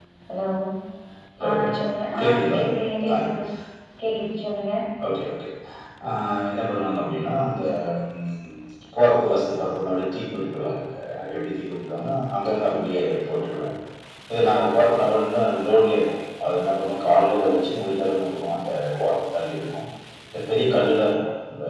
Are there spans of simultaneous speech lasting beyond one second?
No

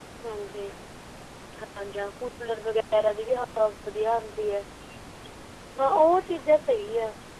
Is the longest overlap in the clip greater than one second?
No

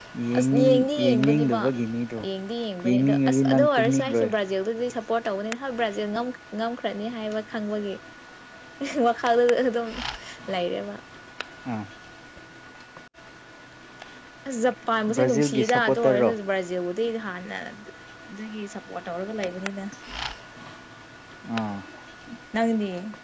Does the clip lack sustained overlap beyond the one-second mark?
No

